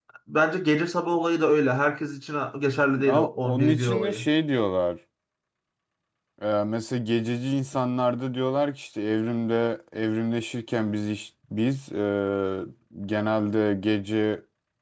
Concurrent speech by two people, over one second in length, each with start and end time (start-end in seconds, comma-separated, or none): 3.0-4.3